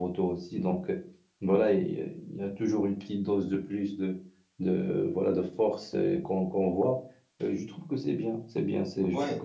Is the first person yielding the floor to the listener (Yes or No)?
Yes